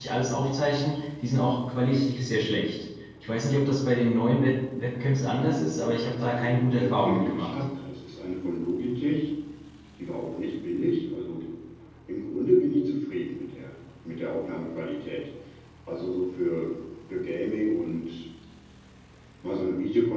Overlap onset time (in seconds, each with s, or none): 6.3 s